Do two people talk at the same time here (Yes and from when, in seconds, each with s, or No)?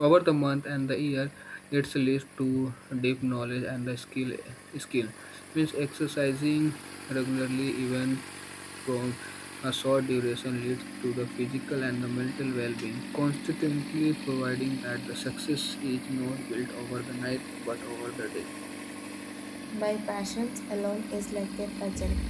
No